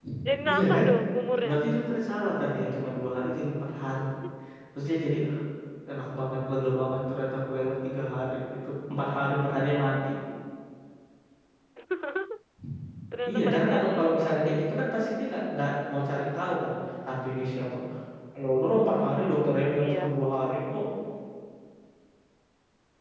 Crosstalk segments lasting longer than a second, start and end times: 13.3-14.5

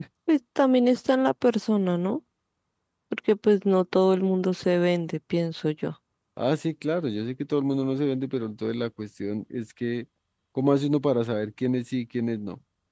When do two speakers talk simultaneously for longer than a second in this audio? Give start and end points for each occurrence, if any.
none

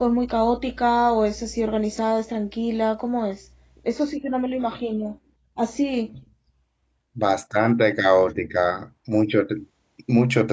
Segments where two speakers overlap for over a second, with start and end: none

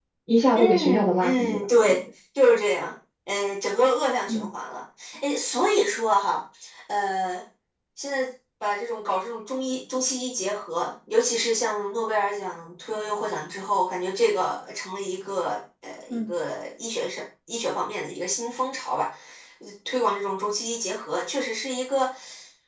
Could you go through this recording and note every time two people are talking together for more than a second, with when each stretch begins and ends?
0.6-2.0

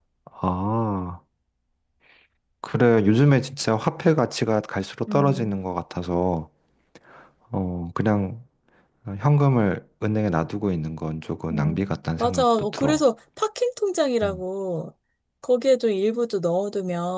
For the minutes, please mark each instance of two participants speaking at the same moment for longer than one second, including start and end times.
11.5-13.0

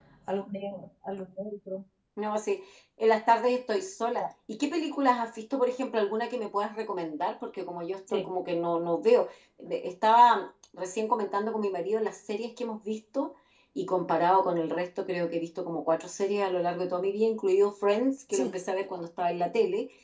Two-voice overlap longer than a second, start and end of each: none

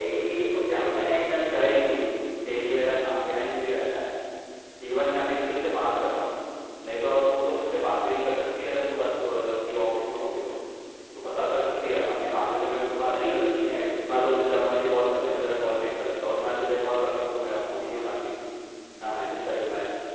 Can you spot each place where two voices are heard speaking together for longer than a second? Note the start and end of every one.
none

